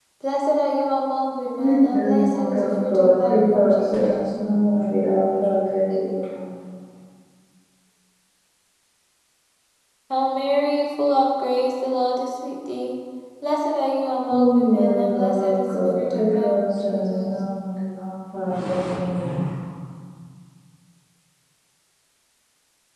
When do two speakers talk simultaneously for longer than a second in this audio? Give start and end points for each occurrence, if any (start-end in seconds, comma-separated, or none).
1.6-4.2, 14.3-17.3